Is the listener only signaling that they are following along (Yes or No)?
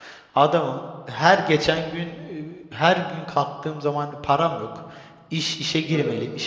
Yes